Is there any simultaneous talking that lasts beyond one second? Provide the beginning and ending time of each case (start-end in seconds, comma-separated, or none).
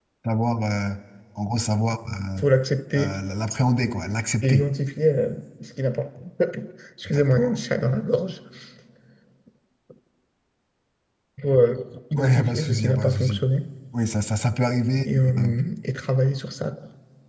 12.2-13.4